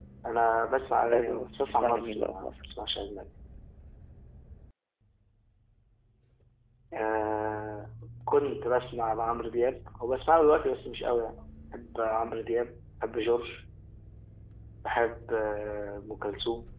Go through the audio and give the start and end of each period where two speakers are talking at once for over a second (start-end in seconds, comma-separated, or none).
1.0-2.7